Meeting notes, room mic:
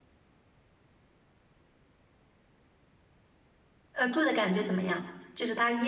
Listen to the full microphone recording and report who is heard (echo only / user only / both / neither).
user only